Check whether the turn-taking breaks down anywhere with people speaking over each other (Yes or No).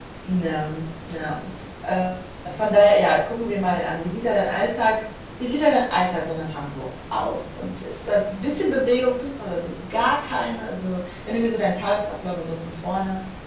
No